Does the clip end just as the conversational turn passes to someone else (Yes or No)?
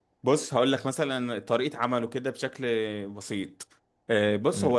No